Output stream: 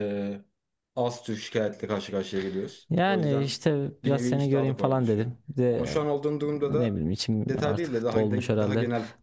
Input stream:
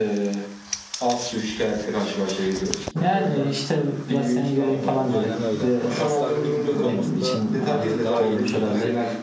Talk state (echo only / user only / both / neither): both